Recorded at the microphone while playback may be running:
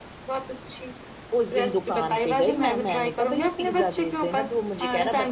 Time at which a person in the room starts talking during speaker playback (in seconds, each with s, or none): 1.4 s